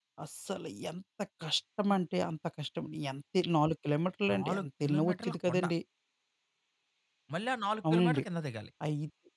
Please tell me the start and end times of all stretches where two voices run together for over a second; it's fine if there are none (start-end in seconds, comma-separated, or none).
4.3-5.7